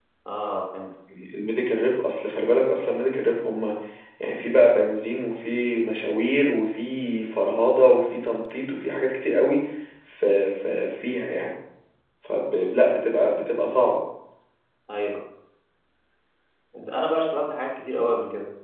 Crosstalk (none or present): none